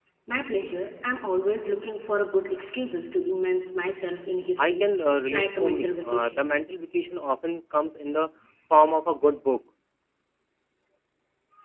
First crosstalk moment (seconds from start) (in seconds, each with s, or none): 4.6 s